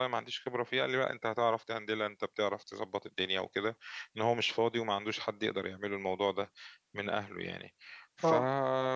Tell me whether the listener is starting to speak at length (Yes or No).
No